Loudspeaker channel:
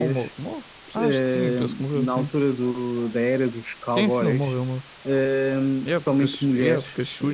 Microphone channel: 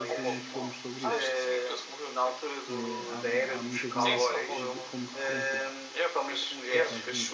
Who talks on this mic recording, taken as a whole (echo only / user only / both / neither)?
both